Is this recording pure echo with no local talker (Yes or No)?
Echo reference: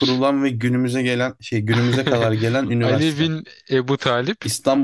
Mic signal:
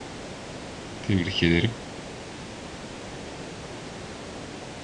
No